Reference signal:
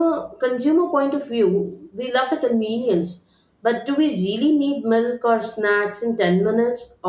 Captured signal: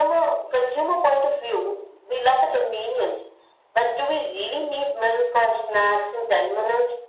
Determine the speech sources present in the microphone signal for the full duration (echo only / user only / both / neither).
echo only